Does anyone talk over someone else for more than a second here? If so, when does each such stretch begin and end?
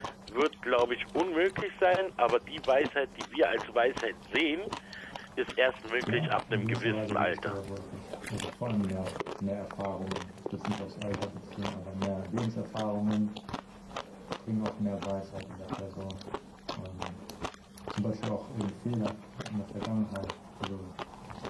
6.1-7.6

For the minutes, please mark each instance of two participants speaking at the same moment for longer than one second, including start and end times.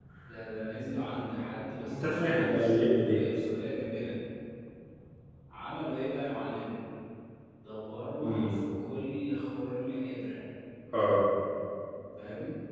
1.9-3.2

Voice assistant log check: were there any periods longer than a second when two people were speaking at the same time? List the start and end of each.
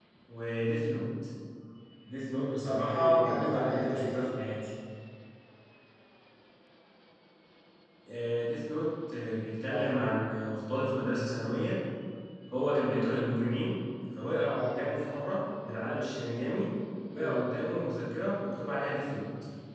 2.6-4.1

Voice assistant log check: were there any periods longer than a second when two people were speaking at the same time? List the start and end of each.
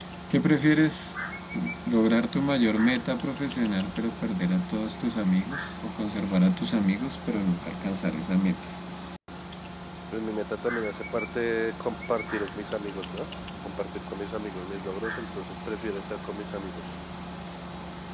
none

